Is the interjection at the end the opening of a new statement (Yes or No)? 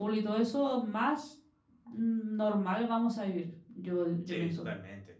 Yes